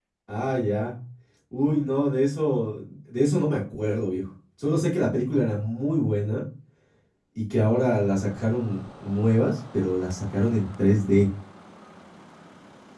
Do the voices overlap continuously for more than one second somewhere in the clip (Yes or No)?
No